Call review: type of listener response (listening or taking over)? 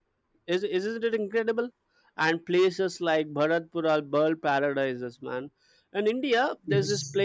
listening